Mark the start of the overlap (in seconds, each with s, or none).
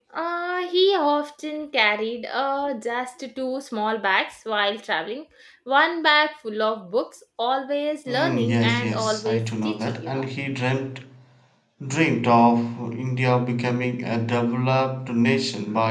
8.1 s